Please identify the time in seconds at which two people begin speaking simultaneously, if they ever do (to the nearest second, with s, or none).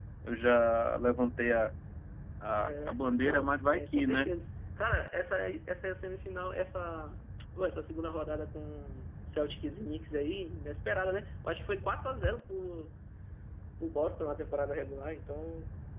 3 s